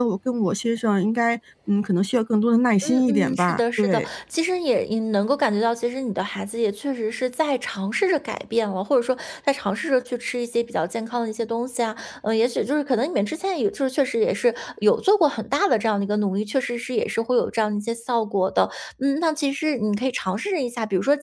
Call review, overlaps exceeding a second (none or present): present